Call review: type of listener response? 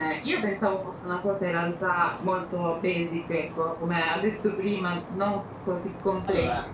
listening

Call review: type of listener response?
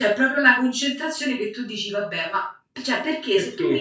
listening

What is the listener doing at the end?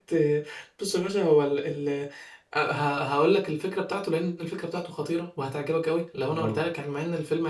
listening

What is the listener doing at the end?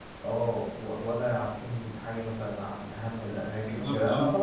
listening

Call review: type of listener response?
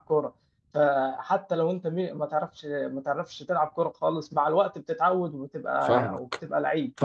taking over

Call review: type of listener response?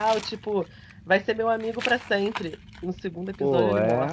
taking over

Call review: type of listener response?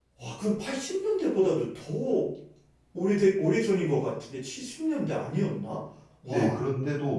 taking over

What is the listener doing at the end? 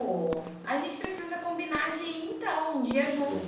taking over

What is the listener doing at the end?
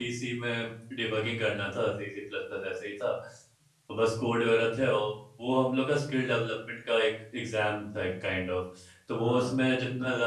listening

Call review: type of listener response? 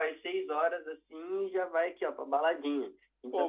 taking over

